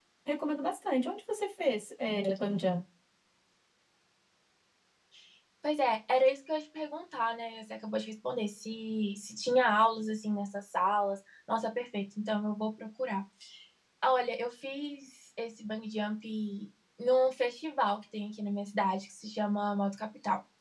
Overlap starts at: none

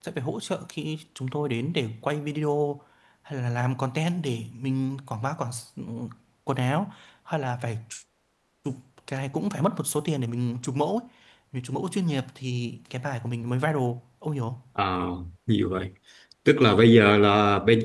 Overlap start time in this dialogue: none

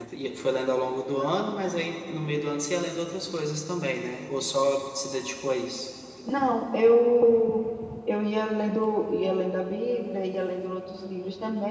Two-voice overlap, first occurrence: none

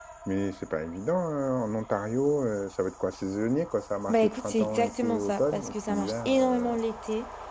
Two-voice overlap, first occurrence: 4.1 s

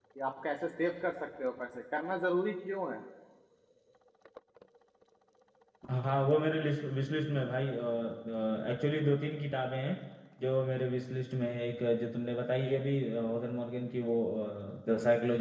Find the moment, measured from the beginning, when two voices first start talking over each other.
none

